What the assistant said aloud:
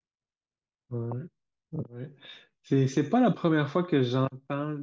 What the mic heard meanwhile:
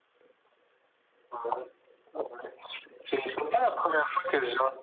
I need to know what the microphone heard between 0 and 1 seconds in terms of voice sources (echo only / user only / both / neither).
neither